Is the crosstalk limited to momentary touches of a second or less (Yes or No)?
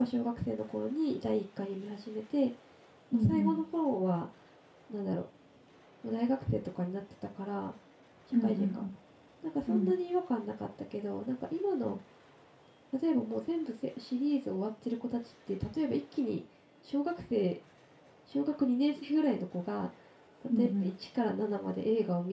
Yes